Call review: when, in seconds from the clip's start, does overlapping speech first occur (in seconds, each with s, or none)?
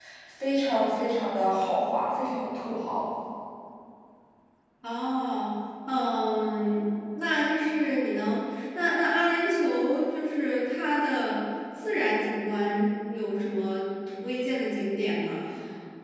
none